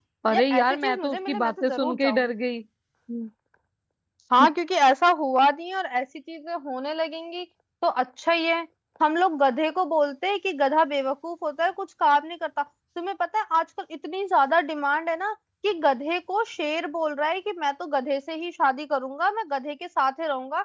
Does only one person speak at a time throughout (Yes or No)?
No